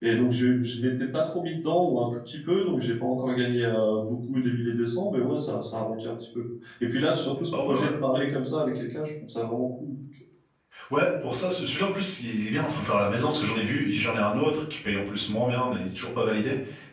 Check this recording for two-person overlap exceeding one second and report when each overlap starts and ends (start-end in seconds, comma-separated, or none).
none